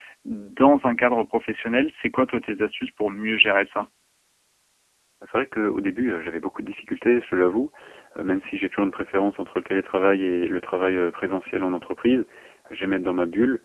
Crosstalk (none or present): none